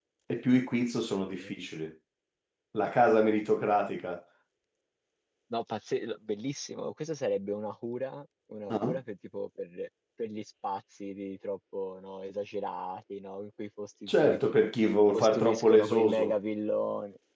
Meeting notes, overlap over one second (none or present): present